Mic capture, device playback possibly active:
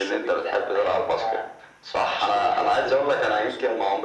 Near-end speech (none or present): none